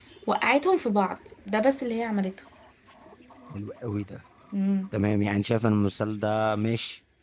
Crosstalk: none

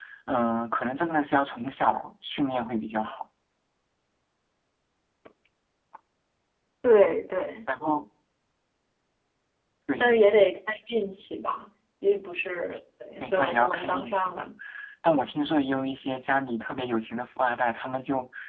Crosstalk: present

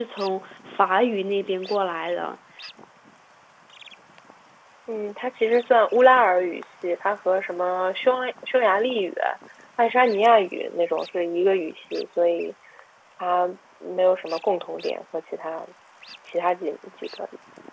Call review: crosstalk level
none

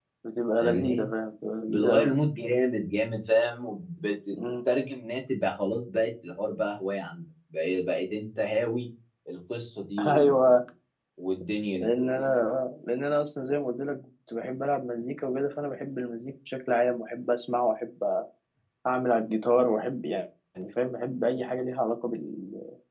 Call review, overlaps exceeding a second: none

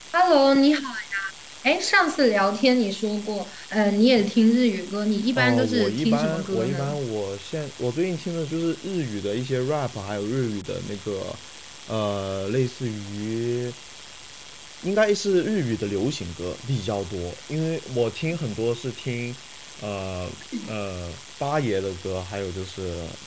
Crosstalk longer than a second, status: present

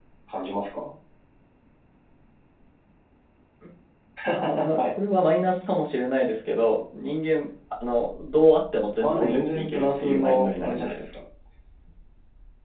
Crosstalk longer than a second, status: present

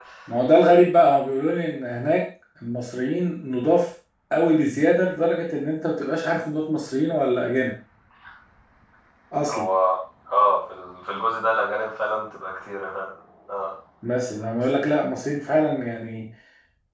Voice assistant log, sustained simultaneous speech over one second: none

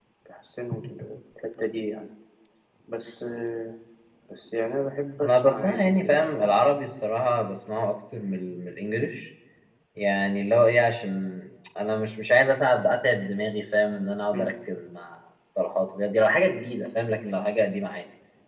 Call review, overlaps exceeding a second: present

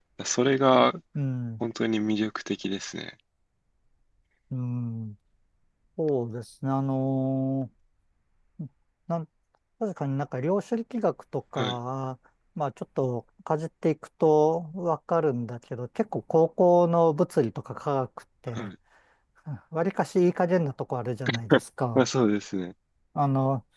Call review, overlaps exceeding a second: none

